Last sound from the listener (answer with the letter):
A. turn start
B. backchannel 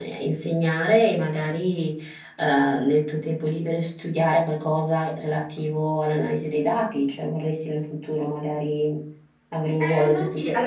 A